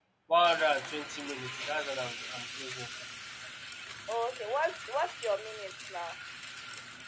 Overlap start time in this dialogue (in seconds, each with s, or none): none